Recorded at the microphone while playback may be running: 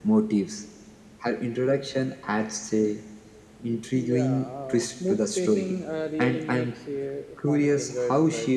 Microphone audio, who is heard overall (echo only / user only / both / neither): echo only